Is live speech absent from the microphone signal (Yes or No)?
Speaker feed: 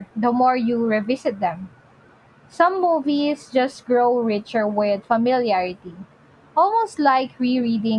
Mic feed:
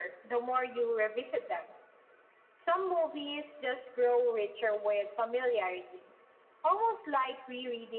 Yes